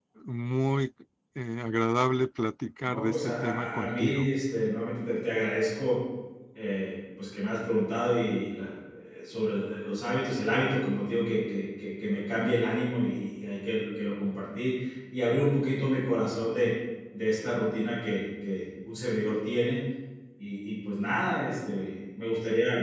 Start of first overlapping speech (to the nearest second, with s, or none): 3 s